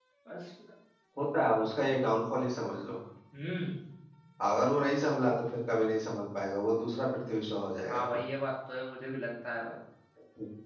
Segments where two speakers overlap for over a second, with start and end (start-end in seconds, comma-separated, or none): none